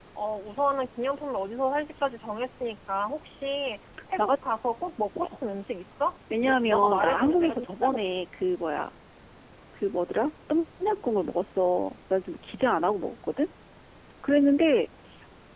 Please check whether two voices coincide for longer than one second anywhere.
Yes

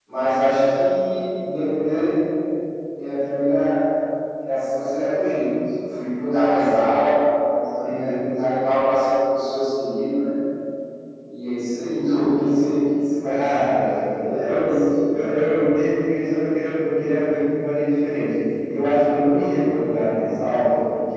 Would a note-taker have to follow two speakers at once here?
Yes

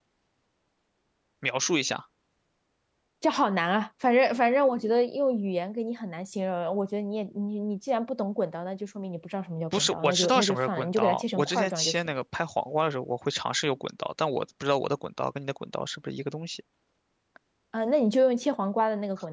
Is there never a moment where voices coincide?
No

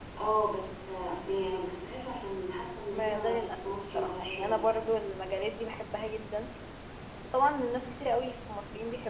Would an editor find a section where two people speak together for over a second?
Yes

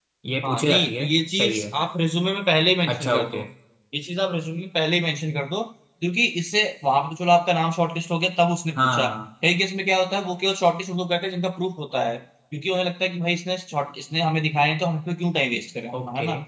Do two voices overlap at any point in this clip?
Yes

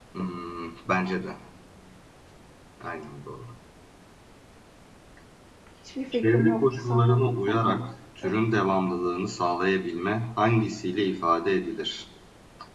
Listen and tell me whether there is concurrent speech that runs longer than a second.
Yes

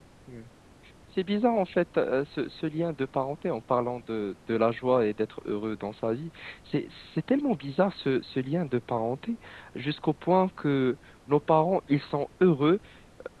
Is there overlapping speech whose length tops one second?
No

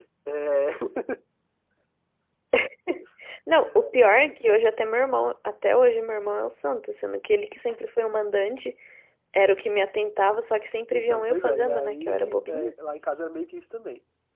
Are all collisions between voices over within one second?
No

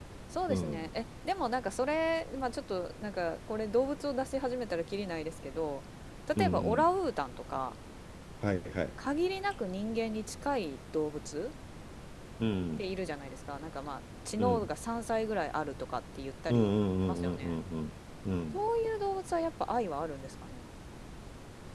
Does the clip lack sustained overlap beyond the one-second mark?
Yes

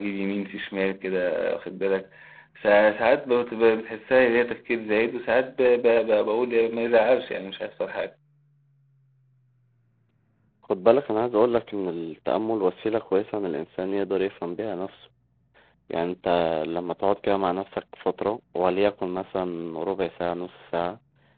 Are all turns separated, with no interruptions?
Yes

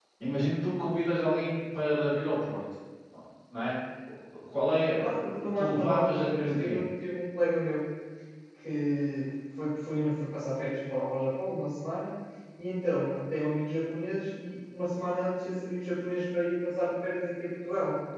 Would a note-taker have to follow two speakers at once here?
Yes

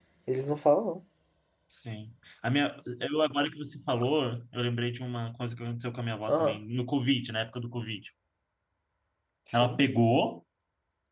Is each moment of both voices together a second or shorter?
Yes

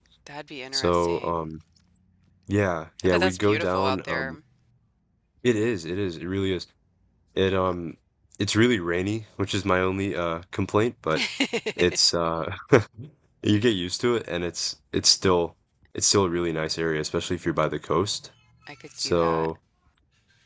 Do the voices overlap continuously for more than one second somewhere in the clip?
Yes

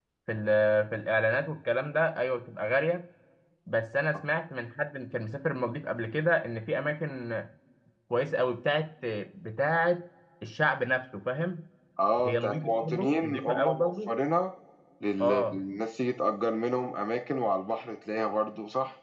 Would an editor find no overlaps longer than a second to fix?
No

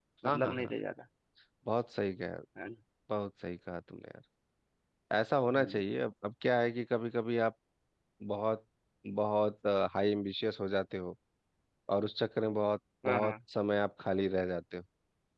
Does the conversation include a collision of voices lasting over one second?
No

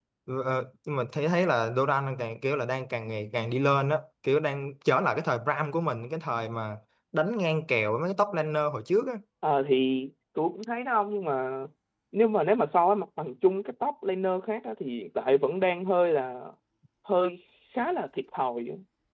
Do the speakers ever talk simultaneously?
No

